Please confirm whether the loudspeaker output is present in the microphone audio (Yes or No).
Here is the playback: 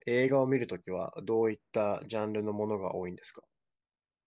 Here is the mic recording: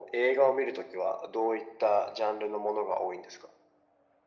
Yes